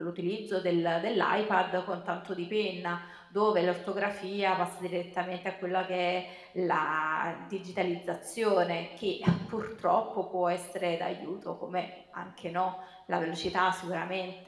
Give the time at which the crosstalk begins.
none

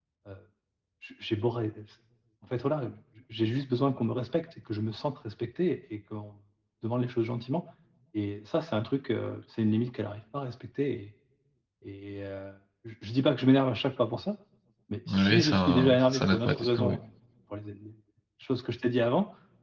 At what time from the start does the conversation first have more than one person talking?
15.1 s

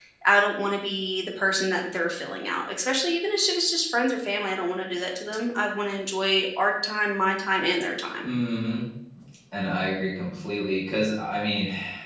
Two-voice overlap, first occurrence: none

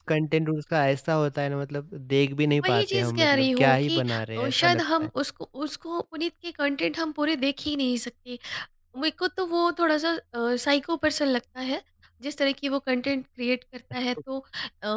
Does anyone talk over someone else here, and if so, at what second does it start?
2.5 s

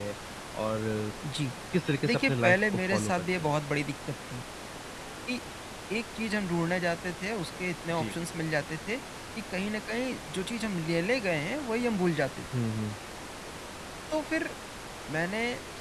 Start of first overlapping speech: 2.0 s

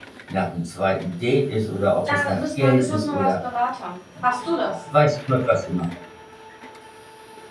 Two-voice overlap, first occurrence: 2.1 s

